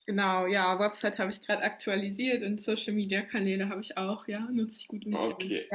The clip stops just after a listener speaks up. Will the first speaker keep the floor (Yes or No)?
No